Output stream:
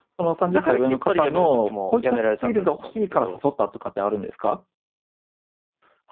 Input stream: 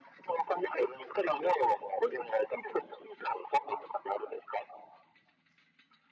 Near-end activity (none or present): none